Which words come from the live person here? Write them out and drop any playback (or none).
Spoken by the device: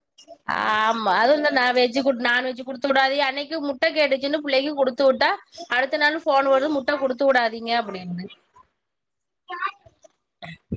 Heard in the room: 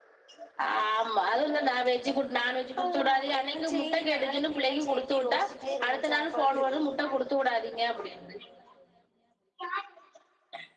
ஆ என்ன செய்ய இனி நாளைக்கி என்ன செய்யன்டு யோஸ்சிட்டே இருந்த சாப்பாடு